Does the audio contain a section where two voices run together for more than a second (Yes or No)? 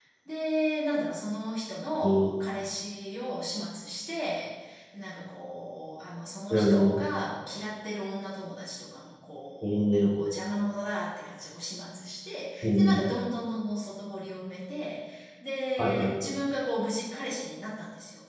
No